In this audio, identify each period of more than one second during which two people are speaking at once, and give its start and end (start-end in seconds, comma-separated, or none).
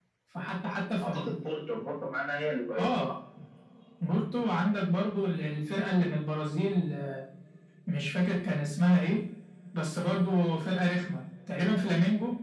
none